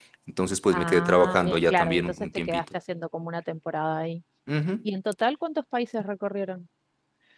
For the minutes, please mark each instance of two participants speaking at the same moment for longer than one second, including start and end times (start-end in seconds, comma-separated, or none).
0.7-2.6